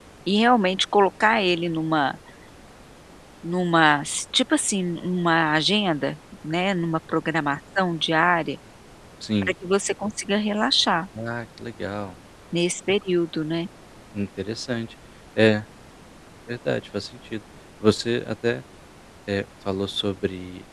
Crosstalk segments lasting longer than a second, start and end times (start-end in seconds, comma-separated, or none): none